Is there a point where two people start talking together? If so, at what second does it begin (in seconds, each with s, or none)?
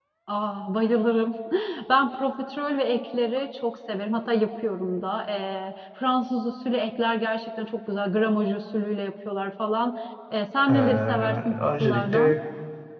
10.7 s